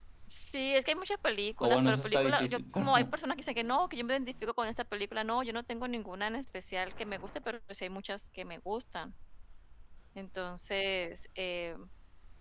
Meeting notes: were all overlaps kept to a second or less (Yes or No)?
No